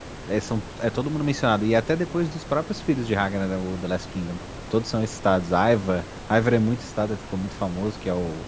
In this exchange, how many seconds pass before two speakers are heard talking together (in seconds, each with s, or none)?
none